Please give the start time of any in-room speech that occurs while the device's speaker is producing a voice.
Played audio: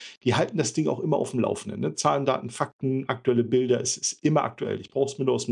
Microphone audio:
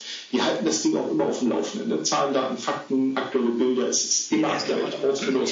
4.3 s

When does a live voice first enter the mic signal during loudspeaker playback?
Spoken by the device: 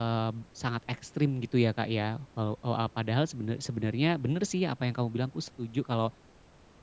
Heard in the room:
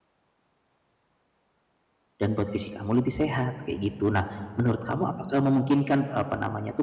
2.2 s

